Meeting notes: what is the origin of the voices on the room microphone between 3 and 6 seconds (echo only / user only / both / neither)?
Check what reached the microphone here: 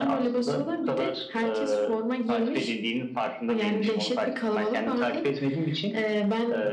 echo only